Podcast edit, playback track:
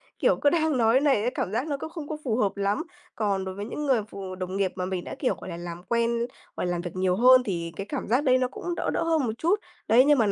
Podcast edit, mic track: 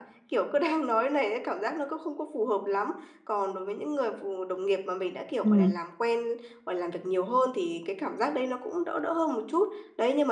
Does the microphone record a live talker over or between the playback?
Yes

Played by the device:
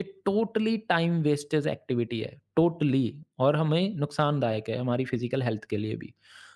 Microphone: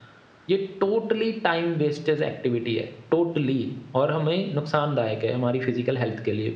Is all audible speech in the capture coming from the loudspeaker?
Yes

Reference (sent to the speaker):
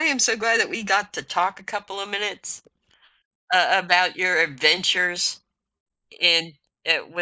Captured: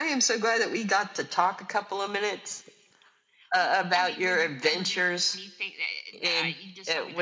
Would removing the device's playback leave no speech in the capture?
No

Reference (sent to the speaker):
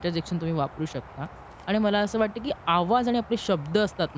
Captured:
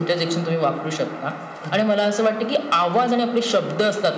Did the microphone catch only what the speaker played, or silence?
No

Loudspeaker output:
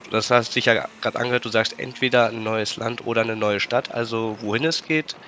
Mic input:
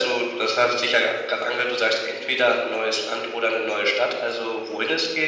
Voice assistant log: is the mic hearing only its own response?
Yes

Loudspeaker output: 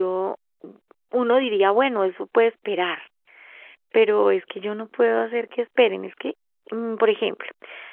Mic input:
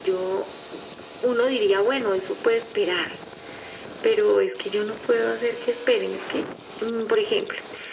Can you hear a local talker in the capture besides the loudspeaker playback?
No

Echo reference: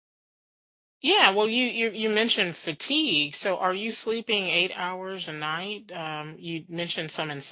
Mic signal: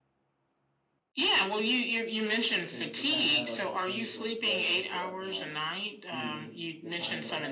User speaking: Yes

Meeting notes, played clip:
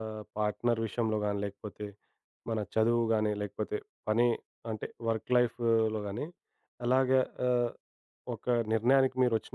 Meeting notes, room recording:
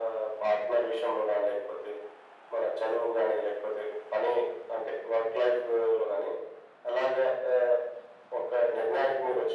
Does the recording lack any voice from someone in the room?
Yes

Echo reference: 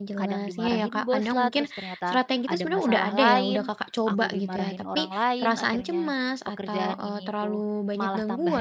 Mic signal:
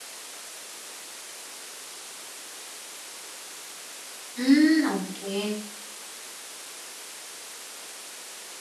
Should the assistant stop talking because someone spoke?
Yes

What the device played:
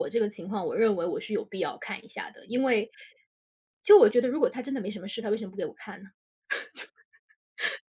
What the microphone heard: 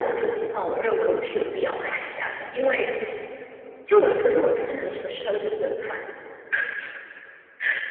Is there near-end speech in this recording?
No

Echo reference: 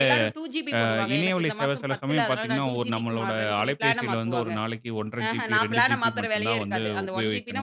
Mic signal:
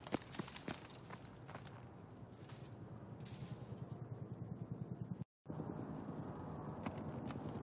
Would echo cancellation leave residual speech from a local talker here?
No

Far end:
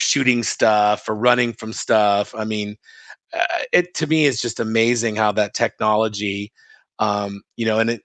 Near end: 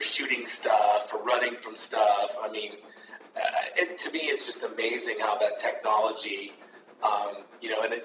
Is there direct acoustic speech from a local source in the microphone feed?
No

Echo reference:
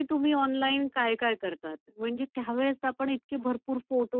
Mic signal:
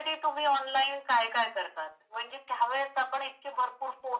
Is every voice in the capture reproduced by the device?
Yes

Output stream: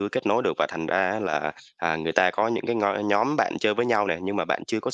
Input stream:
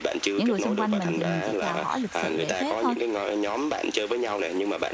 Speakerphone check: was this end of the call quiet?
No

